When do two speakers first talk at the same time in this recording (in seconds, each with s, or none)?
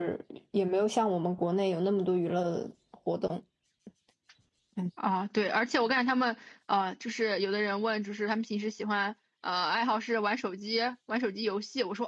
none